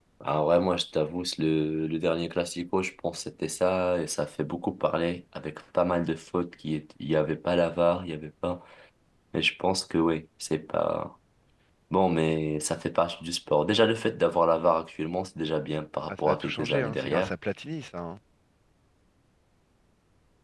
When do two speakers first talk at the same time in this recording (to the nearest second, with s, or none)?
16 s